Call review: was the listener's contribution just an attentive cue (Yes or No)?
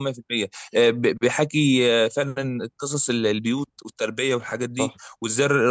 Yes